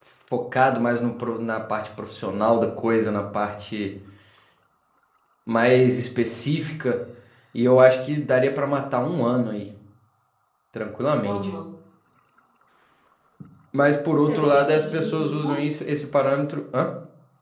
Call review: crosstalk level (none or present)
present